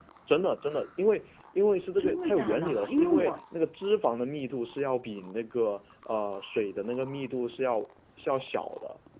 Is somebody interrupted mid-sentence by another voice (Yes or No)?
Yes